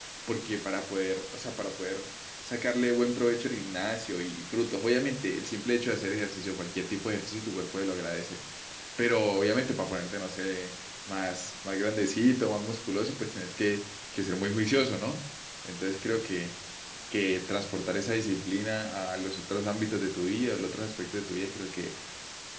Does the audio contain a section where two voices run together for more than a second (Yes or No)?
No